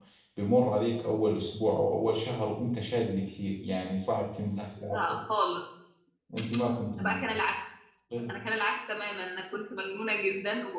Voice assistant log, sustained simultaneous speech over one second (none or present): none